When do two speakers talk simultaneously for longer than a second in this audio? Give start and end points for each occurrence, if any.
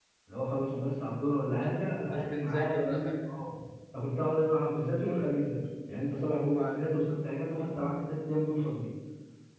1.6-3.3

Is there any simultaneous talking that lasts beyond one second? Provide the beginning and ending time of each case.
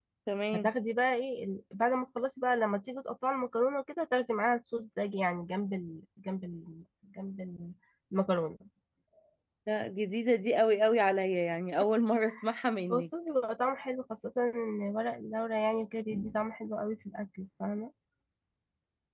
none

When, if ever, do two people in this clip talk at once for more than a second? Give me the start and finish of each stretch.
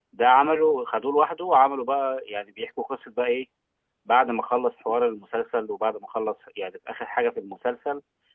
none

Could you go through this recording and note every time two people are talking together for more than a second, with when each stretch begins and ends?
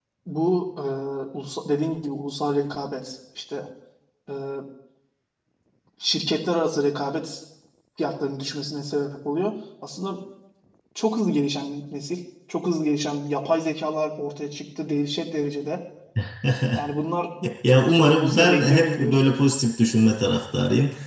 17.9-19.2

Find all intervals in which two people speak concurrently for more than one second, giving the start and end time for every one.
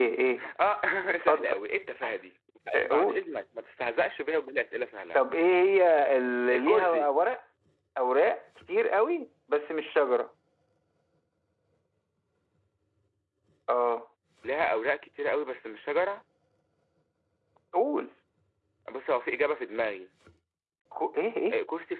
none

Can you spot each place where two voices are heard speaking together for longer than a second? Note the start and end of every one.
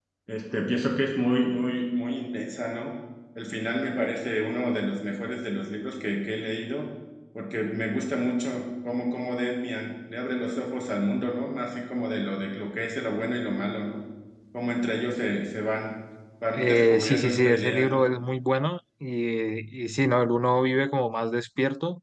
16.5-18.0

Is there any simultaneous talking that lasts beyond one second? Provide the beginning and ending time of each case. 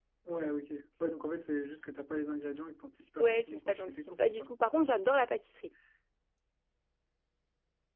3.2-4.5

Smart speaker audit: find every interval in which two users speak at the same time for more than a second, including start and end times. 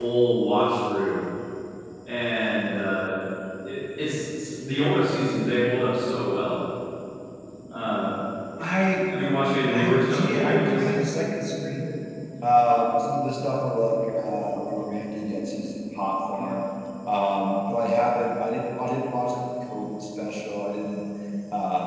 9.7-11.0

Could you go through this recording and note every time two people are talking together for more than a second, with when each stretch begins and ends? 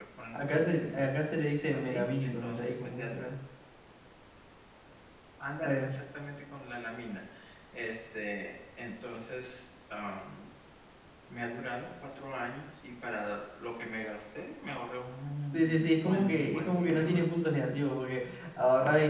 1.7-3.0, 15.5-17.2

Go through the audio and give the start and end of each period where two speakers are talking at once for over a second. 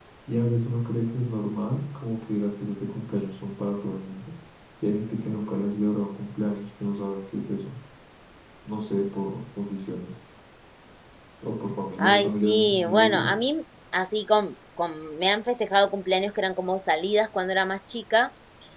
12.0-13.4

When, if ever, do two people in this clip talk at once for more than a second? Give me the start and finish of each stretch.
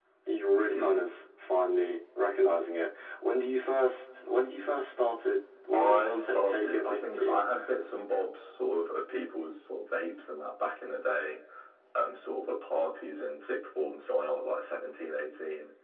5.7-7.4

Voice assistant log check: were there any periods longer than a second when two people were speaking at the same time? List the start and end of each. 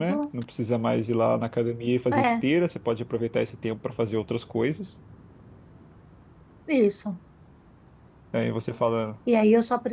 none

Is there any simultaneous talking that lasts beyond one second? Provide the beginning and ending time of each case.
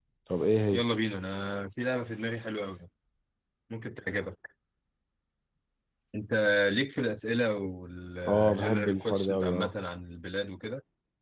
8.3-9.7

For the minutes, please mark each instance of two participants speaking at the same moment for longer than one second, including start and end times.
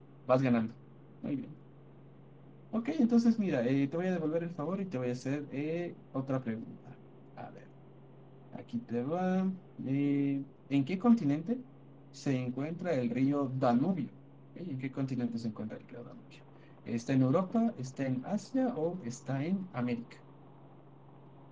none

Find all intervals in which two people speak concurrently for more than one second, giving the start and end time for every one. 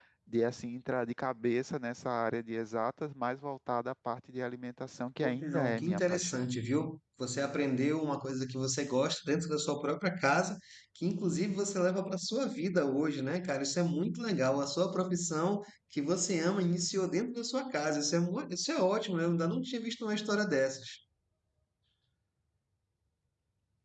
5.2-6.5

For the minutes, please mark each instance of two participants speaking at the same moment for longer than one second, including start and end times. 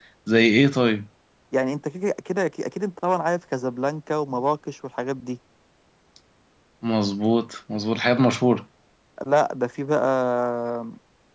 none

